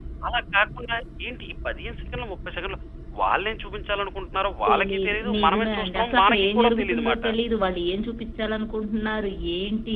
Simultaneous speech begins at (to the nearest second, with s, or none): 5 s